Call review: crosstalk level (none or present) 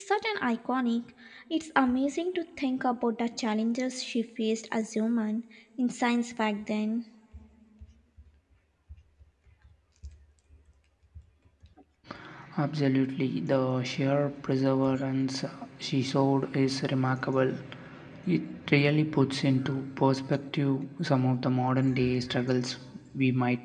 none